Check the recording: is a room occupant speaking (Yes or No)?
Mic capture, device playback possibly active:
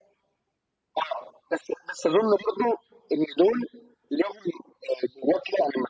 No